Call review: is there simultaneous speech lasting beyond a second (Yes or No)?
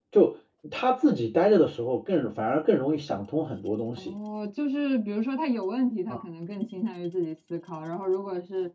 No